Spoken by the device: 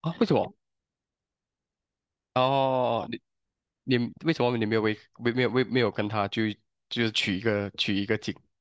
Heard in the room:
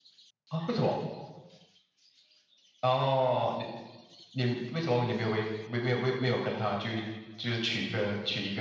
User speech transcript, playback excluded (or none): none